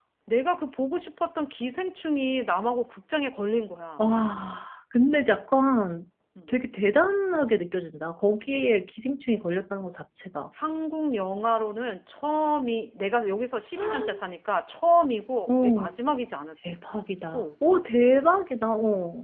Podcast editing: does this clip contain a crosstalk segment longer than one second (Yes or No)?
No